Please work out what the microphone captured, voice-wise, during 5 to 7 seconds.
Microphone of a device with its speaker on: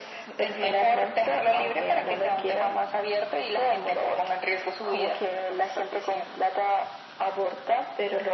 echo only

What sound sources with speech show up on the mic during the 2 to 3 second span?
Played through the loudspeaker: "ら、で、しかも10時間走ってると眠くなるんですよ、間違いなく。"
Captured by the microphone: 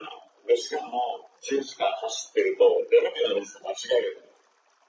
echo only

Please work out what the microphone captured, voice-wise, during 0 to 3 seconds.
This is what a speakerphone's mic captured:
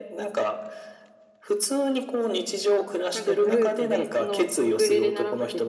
echo only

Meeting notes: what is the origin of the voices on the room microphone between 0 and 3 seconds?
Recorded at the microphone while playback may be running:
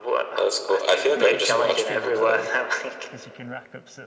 both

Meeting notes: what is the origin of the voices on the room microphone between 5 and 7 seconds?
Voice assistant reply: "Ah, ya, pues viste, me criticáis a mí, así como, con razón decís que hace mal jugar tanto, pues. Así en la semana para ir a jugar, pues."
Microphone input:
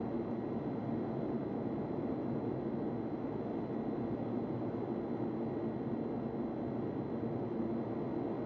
neither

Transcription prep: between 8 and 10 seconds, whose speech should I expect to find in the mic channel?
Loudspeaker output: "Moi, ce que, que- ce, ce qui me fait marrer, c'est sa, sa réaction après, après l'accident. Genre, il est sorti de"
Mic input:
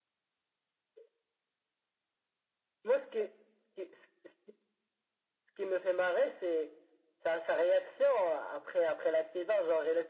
echo only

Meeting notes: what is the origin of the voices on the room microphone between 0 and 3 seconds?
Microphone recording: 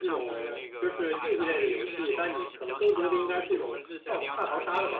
both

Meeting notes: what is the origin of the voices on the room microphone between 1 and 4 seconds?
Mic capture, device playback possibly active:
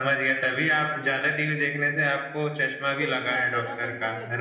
both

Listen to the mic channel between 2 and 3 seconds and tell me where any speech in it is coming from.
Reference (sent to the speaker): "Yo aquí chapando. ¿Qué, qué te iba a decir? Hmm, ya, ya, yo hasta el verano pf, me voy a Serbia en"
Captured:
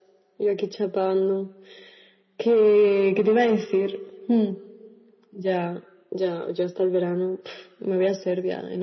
echo only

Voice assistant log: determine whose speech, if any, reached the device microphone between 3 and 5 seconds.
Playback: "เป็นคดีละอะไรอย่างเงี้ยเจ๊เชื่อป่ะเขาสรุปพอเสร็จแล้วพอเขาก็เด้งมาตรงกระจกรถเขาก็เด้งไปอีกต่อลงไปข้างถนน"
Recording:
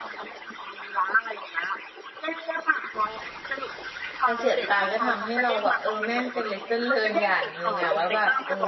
both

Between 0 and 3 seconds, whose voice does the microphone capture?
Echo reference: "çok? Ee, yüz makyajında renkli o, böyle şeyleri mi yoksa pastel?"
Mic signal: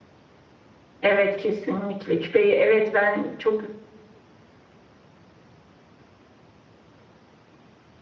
user only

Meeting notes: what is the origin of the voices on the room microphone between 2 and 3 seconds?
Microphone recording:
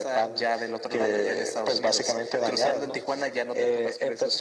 echo only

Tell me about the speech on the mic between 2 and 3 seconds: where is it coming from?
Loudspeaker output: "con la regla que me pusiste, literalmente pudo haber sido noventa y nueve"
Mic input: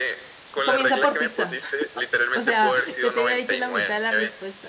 both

